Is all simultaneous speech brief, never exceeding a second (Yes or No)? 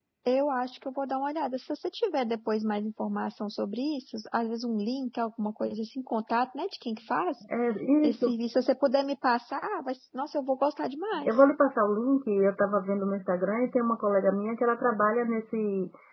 Yes